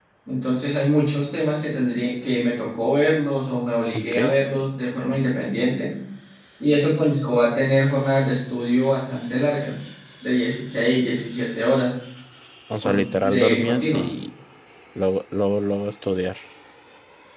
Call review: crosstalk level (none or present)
present